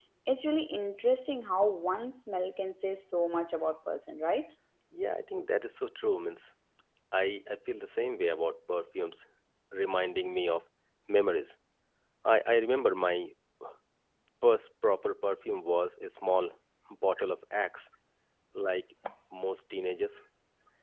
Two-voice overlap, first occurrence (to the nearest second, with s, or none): none